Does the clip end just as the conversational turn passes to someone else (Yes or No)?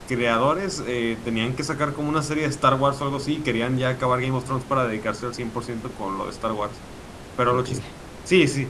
No